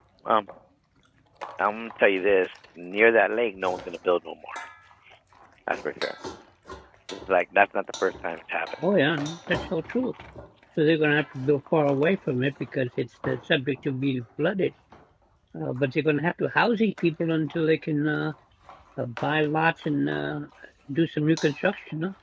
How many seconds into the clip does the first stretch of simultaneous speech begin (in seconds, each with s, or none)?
none